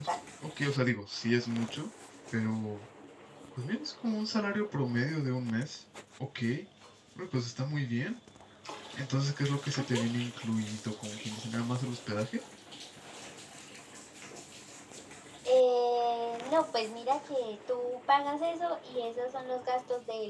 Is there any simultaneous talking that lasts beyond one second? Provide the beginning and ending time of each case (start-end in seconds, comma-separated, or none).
none